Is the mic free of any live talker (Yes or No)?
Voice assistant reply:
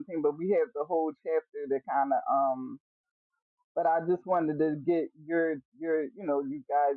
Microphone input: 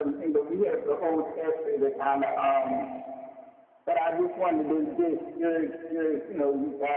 Yes